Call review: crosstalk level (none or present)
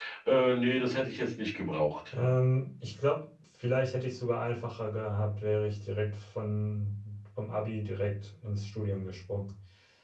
none